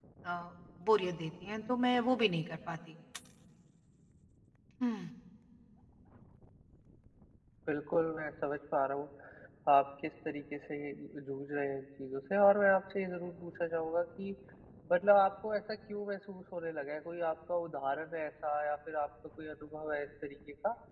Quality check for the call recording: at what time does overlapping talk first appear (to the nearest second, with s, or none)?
none